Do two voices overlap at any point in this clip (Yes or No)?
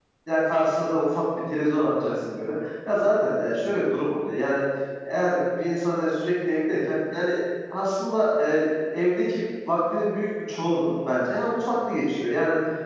No